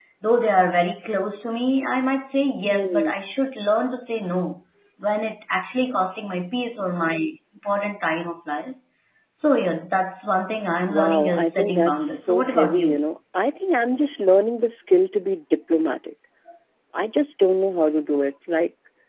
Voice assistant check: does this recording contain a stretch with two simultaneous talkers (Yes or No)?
Yes